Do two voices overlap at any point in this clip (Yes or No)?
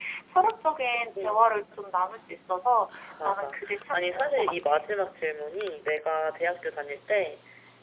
Yes